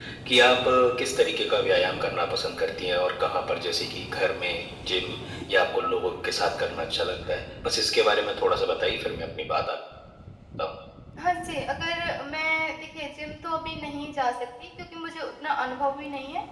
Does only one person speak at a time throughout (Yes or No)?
Yes